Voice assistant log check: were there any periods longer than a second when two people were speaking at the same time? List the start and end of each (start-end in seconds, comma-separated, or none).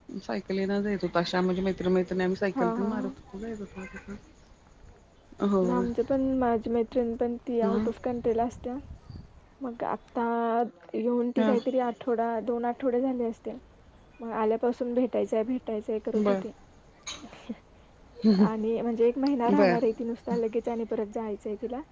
none